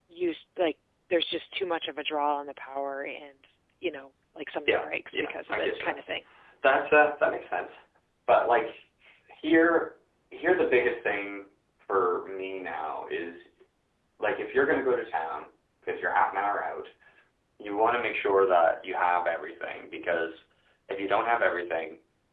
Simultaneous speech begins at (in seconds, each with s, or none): 4.7 s